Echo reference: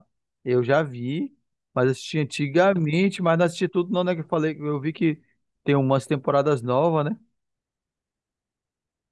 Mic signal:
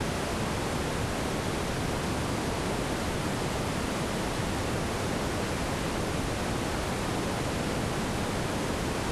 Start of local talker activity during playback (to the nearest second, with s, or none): none